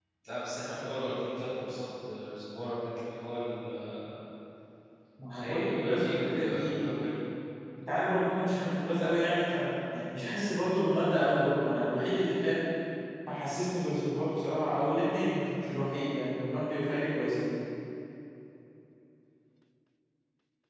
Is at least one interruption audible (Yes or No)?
Yes